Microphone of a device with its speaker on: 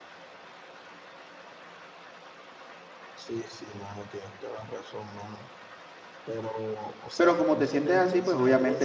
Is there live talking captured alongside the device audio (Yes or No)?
Yes